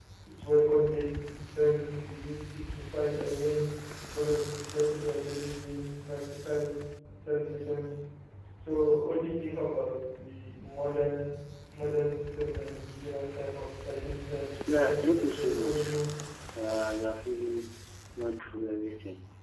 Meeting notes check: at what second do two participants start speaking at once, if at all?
14.5 s

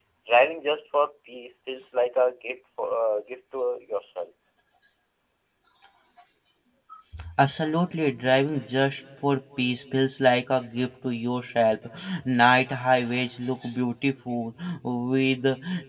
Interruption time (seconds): none

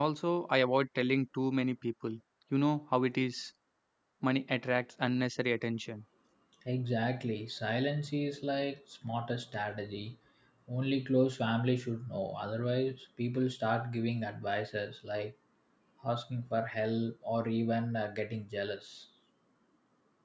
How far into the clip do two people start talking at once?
none

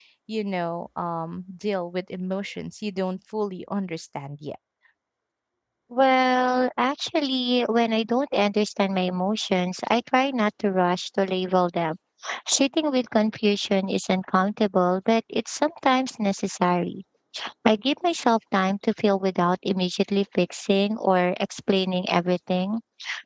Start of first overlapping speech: none

